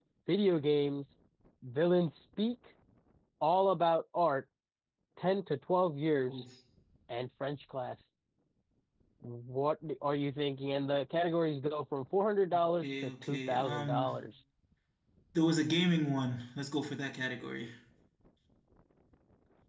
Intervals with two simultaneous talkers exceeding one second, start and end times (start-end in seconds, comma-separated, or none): 12.8-14.1